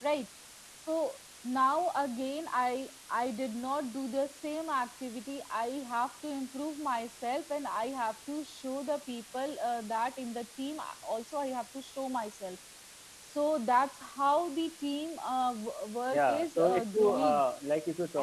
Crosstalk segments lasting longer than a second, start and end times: 16.1-17.4

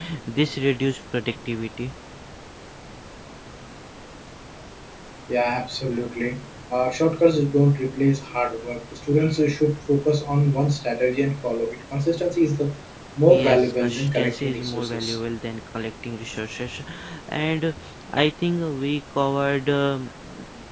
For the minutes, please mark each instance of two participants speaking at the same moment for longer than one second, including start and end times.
13.3-15.2

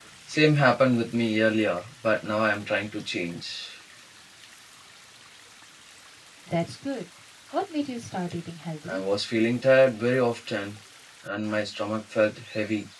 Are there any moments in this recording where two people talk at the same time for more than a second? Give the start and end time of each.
none

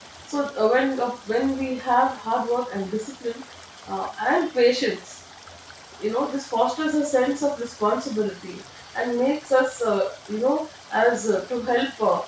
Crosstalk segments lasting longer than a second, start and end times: none

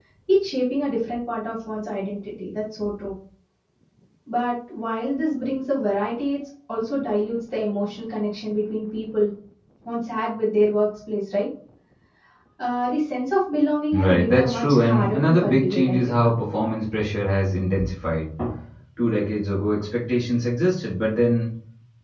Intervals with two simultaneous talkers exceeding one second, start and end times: 13.9-16.2

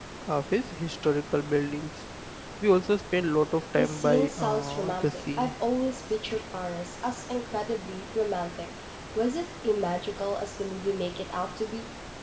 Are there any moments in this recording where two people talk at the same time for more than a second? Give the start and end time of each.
3.8-5.5

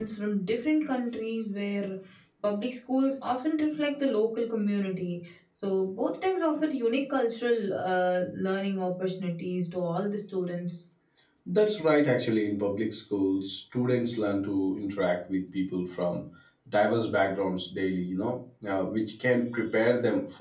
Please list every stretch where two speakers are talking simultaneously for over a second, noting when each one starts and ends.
none

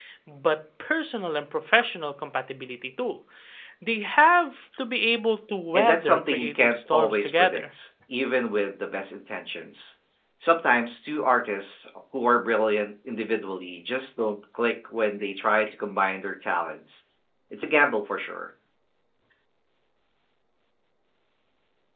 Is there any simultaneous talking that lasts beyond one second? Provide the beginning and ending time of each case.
5.7-7.6

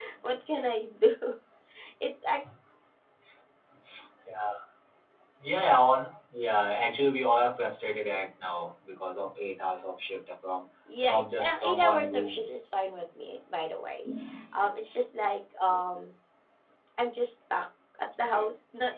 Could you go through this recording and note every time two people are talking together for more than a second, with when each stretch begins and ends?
11.1-12.4

